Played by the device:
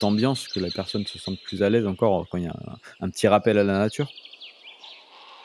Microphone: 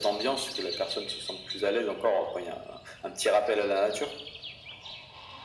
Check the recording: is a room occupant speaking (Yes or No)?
No